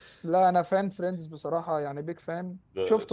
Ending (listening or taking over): listening